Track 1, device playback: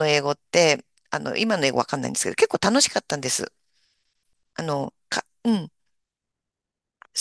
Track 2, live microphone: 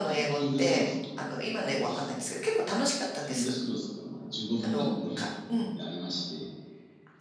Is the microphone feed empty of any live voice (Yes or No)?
No